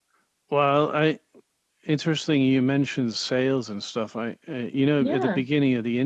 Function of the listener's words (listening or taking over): listening